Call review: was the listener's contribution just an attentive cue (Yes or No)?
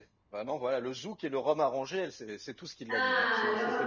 No